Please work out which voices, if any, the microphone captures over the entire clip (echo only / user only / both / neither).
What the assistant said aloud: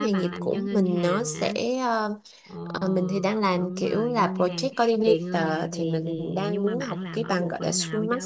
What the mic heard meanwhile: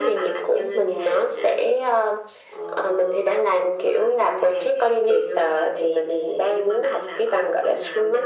echo only